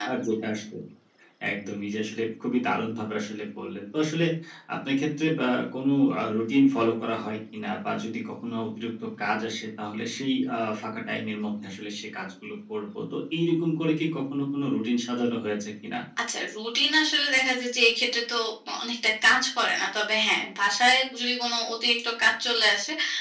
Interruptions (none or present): none